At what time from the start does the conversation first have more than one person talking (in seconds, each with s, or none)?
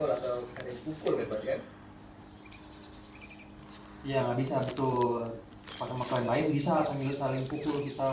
none